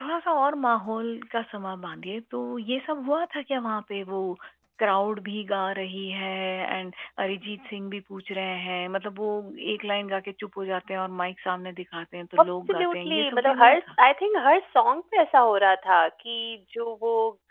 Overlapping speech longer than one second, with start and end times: 12.4-13.8

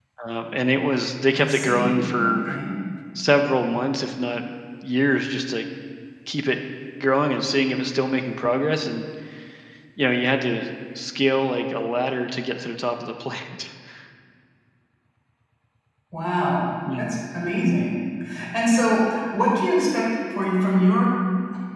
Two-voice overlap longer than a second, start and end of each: 1.4-2.6

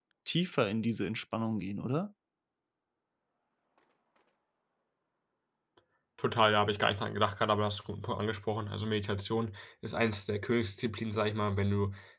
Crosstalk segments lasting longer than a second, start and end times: none

